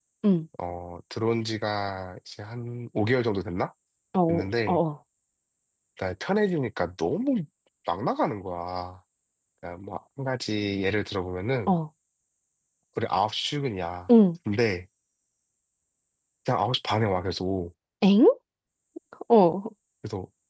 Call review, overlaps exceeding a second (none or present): none